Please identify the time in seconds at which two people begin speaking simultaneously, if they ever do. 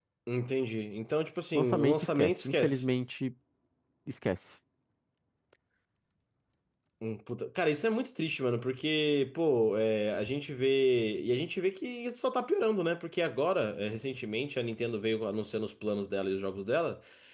2 s

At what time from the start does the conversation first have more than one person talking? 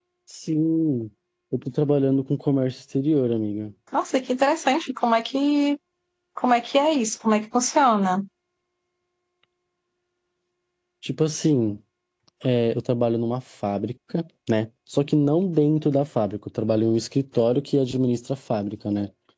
none

